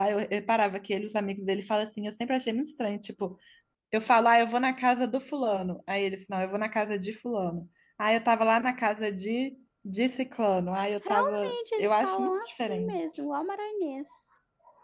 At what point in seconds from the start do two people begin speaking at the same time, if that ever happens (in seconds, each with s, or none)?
11.0 s